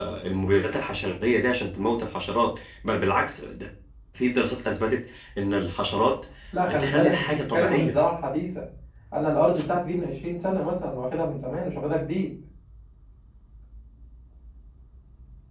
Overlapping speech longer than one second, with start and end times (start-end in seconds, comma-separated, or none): 6.7-8.0